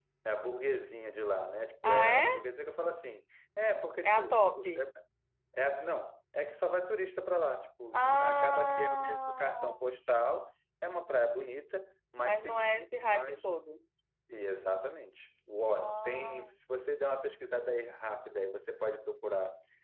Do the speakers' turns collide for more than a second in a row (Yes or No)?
Yes